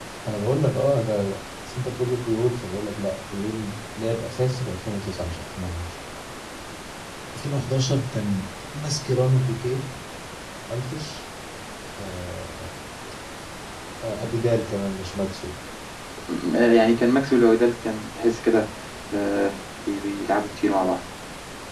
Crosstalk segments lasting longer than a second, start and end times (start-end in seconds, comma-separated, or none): none